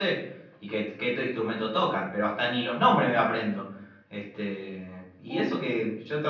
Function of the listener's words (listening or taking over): listening